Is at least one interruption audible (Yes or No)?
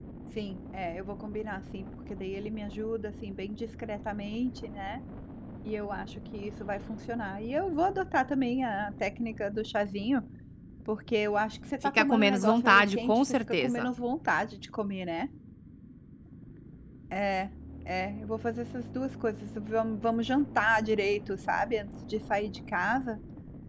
Yes